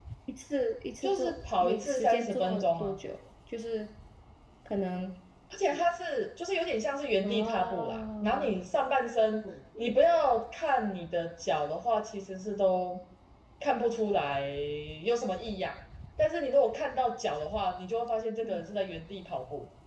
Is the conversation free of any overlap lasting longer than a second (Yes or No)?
No